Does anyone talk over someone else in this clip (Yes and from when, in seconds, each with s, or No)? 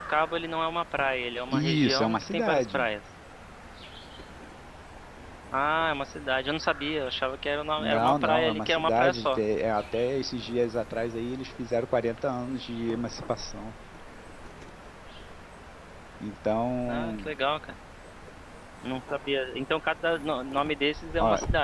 Yes, from 1.5 s